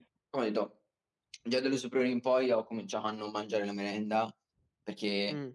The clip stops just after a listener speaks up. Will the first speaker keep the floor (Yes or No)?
Yes